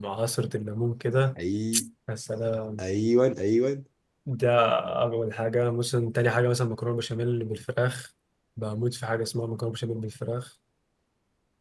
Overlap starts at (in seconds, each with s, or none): none